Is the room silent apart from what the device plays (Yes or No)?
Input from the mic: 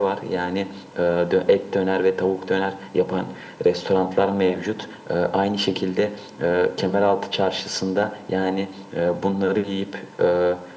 Yes